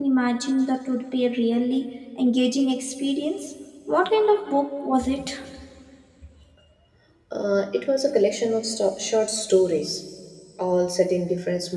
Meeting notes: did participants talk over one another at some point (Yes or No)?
No